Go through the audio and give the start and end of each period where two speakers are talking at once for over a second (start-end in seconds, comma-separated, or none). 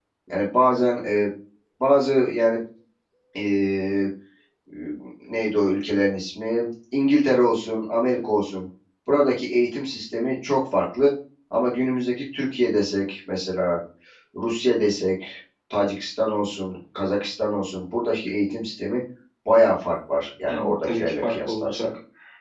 20.5-21.9